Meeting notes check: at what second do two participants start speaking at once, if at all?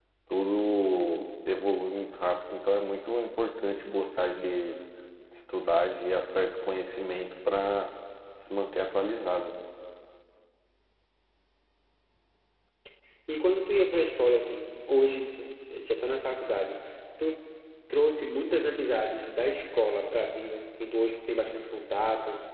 none

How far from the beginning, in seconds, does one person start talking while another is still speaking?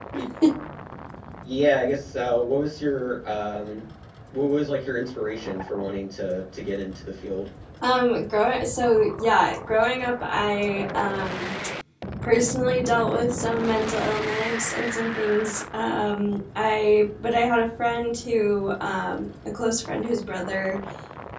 none

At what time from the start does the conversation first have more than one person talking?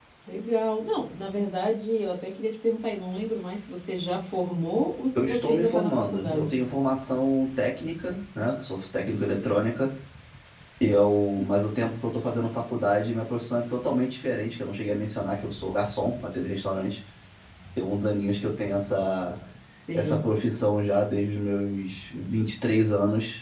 5 s

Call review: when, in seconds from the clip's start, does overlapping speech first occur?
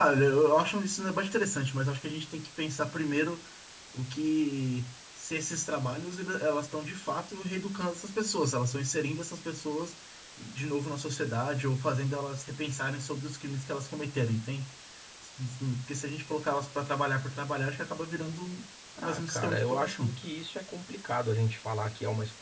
19 s

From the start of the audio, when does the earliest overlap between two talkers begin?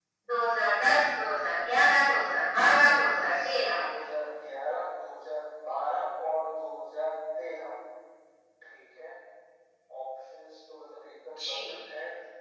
2 s

